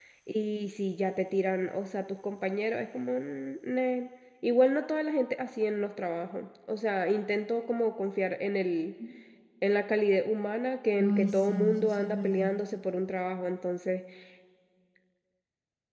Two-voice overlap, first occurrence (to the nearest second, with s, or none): 11 s